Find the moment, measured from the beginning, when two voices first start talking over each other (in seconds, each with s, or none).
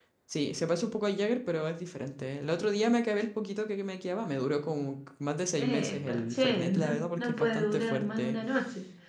5.6 s